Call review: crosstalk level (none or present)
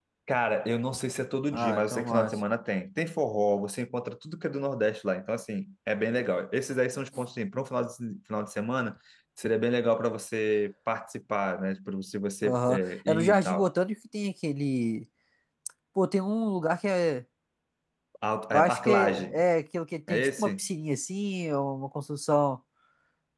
present